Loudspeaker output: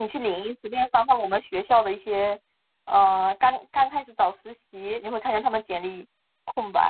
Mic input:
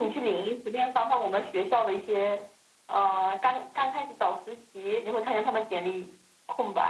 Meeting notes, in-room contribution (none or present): none